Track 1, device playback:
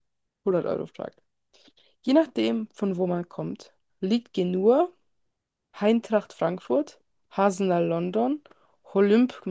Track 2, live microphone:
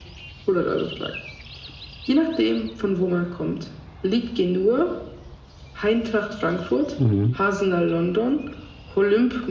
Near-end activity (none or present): present